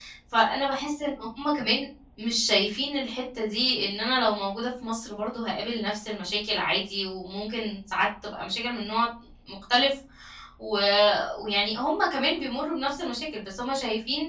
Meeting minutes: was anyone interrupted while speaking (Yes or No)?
No